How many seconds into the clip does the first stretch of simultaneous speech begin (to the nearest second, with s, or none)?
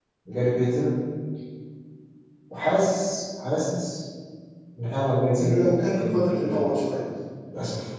5 s